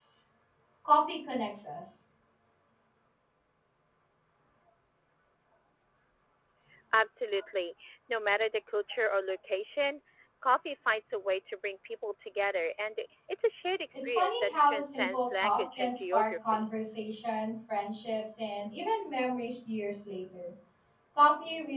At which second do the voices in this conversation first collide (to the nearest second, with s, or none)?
14 s